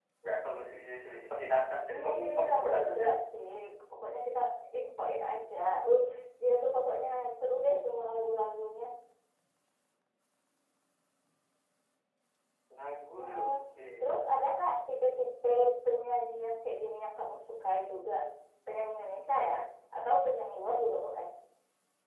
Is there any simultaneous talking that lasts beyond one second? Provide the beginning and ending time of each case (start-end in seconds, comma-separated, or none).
1.9-3.1